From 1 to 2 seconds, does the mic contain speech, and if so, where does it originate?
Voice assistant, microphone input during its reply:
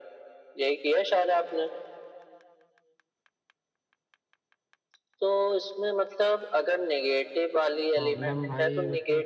echo only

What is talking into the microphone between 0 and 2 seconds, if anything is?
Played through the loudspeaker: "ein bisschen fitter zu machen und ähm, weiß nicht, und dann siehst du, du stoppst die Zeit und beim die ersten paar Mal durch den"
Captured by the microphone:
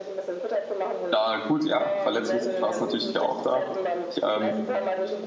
both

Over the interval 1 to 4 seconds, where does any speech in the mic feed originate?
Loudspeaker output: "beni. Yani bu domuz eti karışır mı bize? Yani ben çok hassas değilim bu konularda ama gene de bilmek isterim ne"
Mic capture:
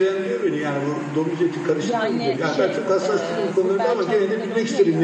both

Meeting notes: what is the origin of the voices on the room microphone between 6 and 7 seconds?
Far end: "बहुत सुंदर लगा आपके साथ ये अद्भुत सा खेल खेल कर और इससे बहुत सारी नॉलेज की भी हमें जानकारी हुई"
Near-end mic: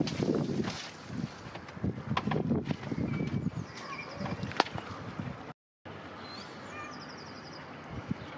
neither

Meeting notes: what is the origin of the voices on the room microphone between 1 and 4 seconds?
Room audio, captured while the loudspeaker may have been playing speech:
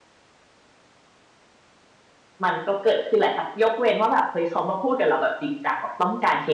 user only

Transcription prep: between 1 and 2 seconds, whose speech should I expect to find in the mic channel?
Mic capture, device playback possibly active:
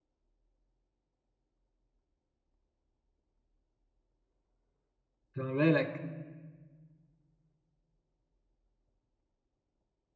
neither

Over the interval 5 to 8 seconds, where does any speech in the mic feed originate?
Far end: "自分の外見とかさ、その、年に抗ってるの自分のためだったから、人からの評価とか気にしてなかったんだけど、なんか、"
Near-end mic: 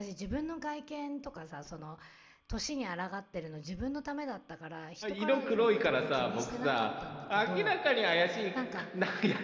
both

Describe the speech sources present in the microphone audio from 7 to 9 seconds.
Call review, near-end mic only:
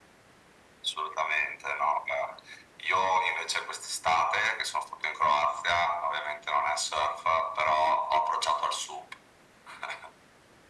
echo only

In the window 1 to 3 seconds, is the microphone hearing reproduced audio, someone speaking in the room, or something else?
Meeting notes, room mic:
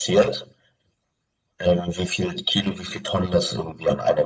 echo only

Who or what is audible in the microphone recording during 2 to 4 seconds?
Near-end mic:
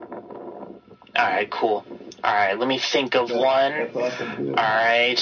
both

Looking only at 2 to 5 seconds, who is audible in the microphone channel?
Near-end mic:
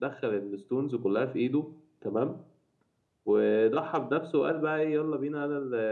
user only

